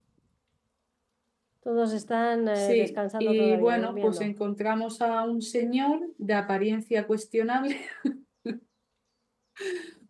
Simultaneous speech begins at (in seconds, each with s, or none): 2.6 s